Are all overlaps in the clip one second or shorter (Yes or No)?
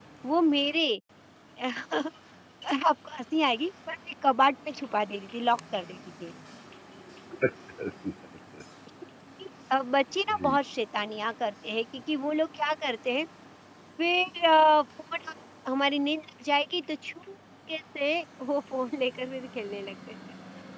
Yes